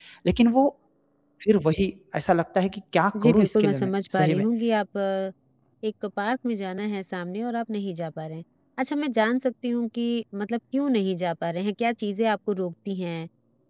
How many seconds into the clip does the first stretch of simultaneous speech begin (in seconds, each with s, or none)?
3.1 s